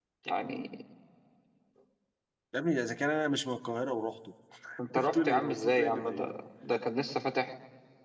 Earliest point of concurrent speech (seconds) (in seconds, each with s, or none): 5.0 s